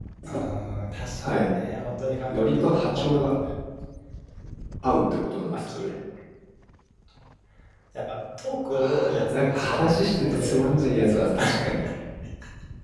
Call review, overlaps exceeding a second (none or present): present